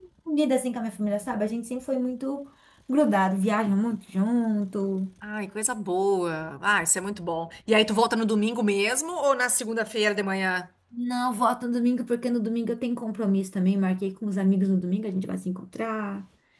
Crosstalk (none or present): none